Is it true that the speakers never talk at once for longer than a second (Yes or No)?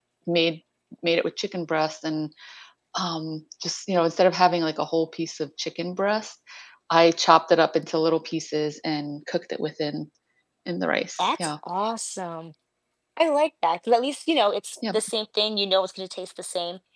Yes